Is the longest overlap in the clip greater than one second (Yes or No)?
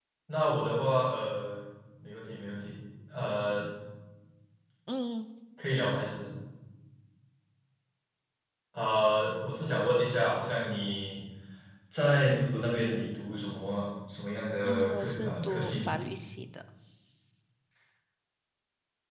Yes